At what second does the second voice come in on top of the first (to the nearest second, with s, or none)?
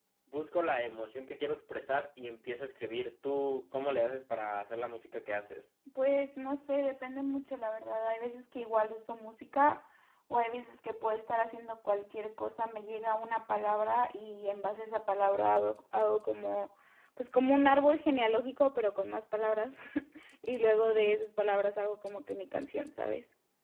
none